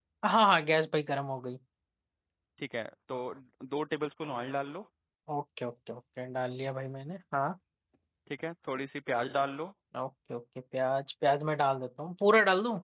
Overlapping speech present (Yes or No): No